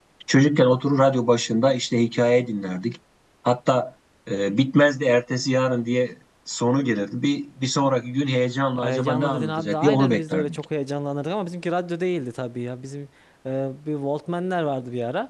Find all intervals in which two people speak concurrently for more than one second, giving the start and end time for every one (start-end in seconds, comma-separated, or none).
8.8-10.6